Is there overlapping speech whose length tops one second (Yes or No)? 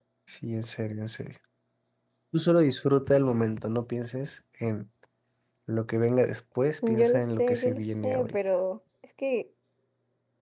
Yes